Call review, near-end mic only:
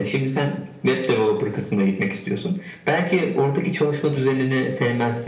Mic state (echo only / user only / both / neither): echo only